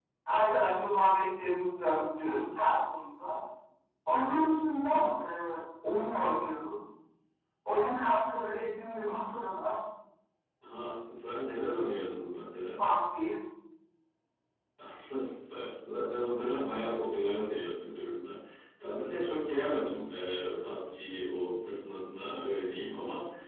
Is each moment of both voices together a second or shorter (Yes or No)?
Yes